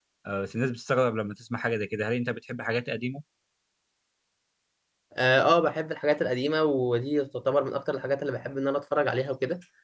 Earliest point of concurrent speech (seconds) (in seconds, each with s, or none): none